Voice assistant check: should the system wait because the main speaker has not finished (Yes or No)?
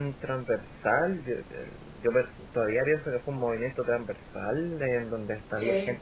Yes